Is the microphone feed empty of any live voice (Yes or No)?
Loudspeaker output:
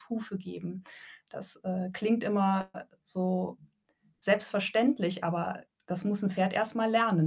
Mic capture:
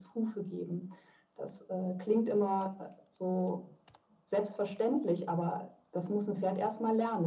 Yes